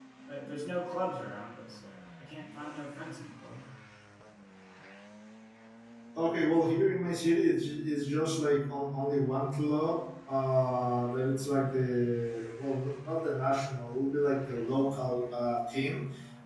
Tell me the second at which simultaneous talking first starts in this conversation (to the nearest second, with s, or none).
none